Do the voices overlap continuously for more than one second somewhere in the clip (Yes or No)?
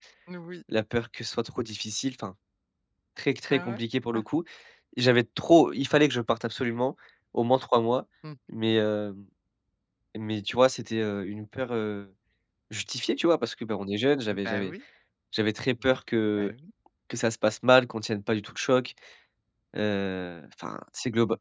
No